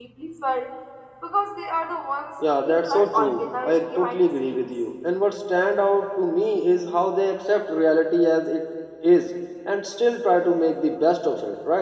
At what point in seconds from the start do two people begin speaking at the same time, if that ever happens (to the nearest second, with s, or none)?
2 s